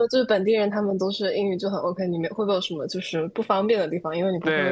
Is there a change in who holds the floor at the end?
Yes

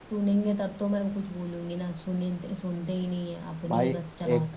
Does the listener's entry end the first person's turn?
Yes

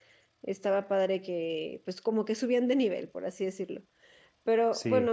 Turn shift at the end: No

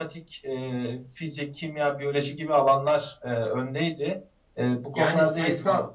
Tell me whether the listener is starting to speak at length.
Yes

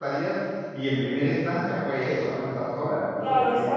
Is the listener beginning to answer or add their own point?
Yes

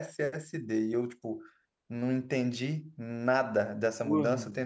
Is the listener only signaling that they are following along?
Yes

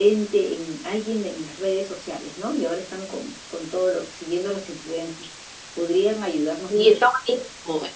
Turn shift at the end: Yes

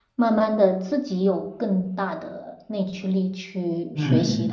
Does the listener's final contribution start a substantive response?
Yes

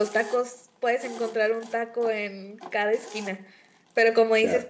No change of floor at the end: Yes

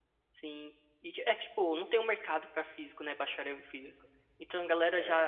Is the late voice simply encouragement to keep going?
Yes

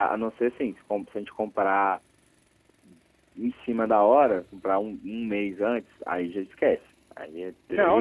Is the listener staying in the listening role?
No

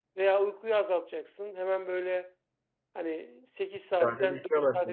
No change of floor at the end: Yes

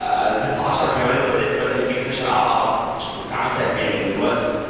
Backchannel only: Yes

